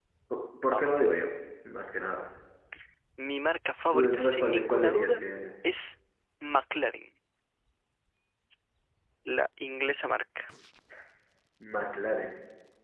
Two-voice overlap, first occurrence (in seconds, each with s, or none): 3.9 s